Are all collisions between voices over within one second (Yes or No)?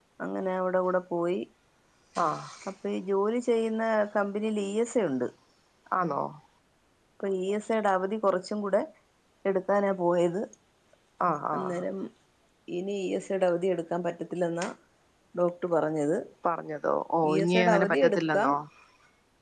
No